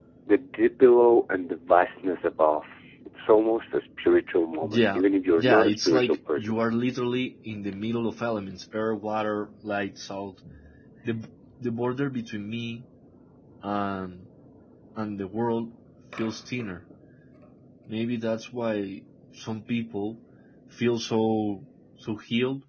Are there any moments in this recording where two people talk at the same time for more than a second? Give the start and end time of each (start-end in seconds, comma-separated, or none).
5.4-6.6